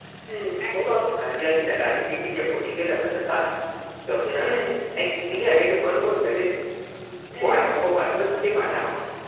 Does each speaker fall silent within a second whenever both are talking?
Yes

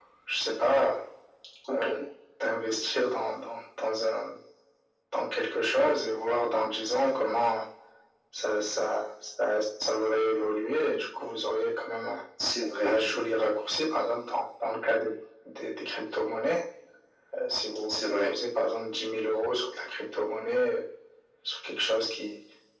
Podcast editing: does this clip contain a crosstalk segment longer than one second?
No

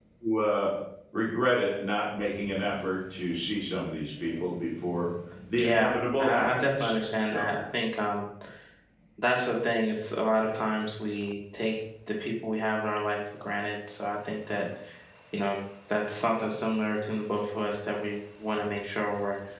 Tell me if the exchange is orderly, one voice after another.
No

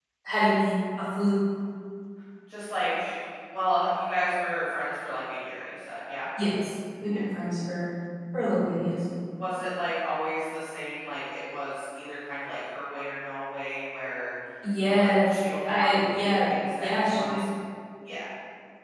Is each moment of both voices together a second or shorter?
No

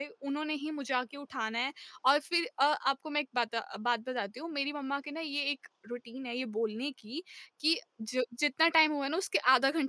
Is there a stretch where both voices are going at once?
No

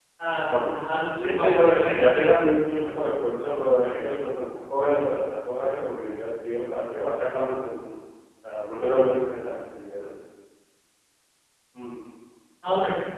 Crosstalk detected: Yes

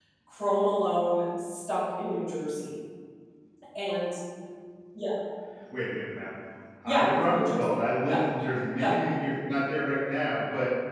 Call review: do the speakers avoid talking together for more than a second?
No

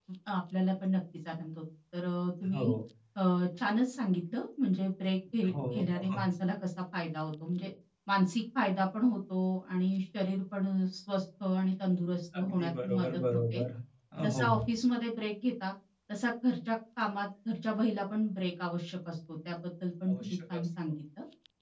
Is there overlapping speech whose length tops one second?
Yes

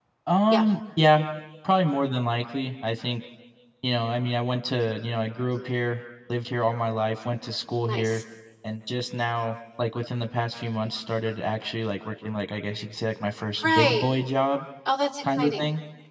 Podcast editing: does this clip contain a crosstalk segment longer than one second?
No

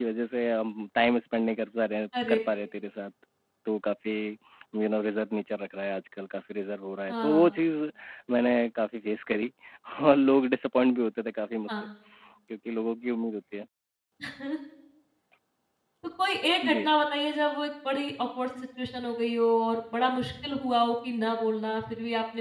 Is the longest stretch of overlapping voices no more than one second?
Yes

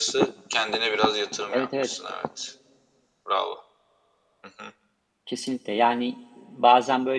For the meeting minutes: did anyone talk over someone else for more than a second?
No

